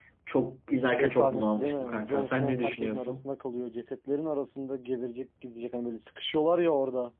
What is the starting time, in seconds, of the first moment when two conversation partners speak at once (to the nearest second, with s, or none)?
1 s